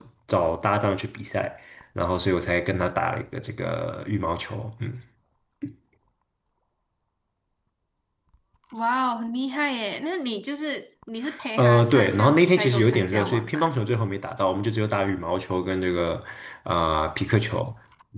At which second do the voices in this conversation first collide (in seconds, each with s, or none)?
11.6 s